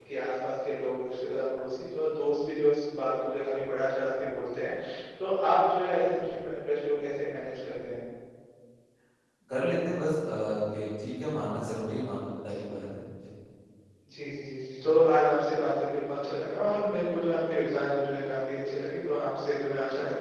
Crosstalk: none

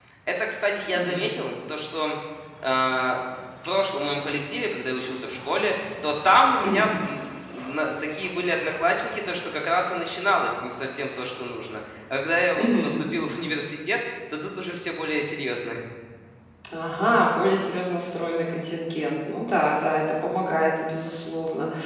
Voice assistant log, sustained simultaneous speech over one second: none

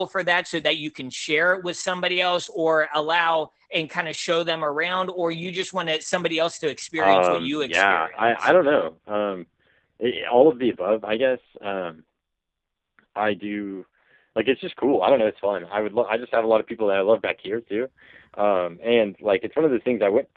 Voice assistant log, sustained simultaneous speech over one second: present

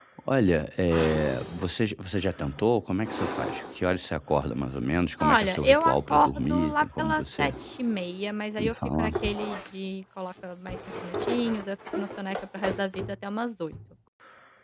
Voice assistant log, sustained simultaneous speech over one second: present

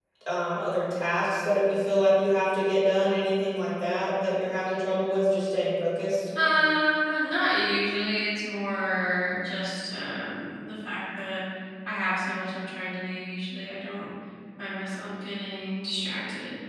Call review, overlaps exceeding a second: none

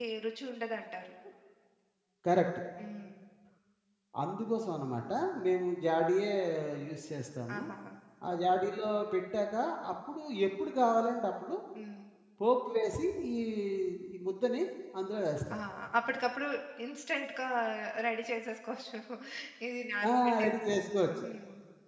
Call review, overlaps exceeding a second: none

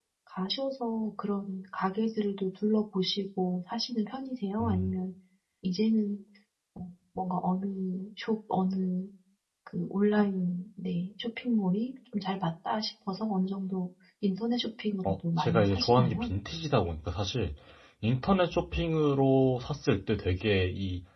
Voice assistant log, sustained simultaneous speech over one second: present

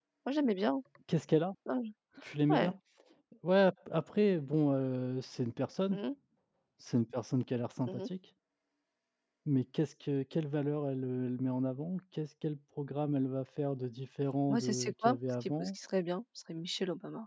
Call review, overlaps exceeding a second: present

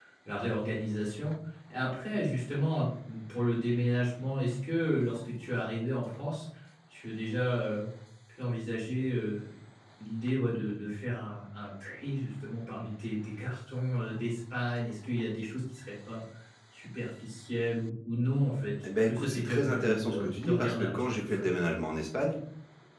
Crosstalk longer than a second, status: present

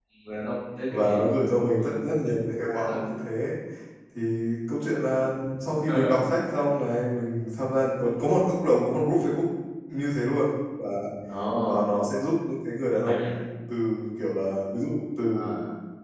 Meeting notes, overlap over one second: none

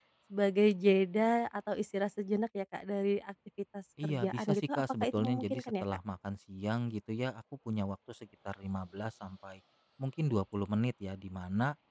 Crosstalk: present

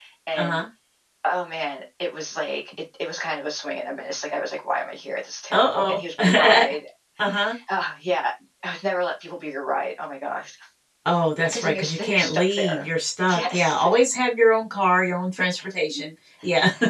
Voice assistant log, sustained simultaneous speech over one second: present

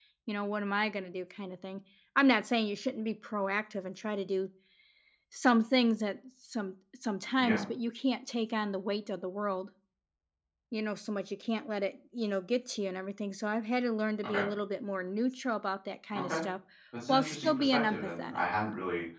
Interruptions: present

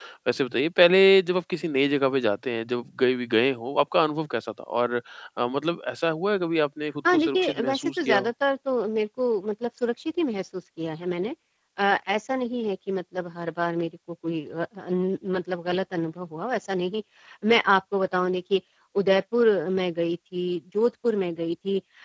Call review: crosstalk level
present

